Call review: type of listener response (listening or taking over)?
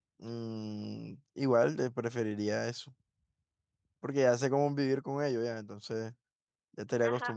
taking over